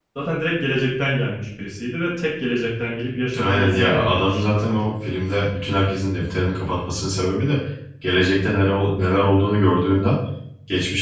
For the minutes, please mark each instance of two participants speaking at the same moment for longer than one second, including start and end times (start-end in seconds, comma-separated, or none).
3.4-4.9